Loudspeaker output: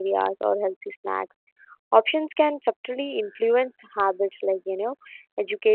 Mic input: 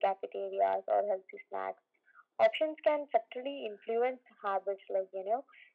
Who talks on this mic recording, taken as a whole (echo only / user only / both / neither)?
echo only